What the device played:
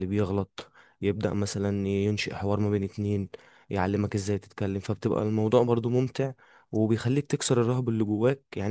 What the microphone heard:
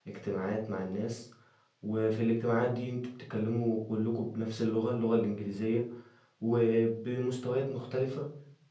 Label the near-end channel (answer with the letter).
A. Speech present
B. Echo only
A